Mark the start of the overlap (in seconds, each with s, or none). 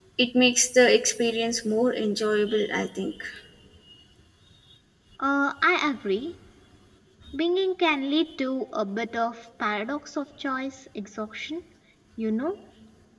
none